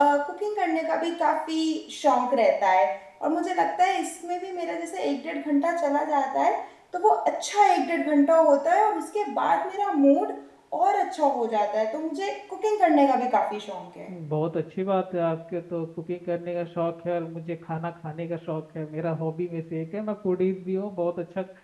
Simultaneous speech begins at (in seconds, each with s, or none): none